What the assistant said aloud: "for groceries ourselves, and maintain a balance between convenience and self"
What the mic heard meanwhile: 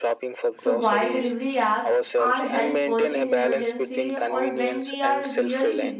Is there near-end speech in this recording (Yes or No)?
Yes